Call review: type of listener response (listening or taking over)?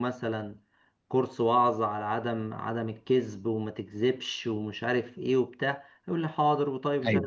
listening